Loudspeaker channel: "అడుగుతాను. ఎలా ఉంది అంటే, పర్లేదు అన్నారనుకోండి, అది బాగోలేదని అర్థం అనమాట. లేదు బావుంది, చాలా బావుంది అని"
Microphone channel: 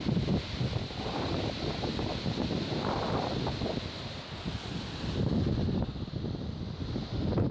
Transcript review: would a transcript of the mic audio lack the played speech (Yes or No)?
Yes